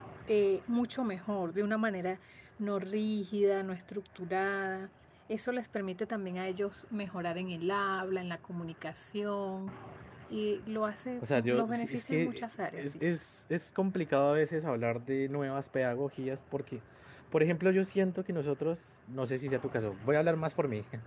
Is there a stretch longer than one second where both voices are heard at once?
Yes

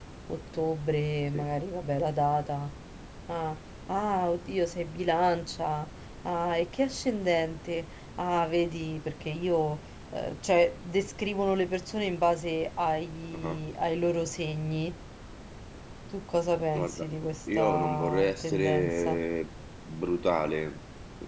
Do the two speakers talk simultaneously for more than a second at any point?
Yes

